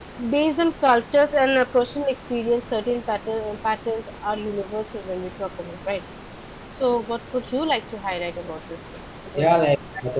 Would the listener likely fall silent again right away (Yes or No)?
No